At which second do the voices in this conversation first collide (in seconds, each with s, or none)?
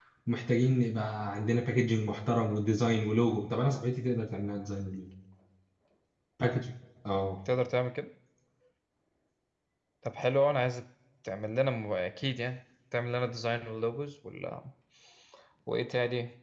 none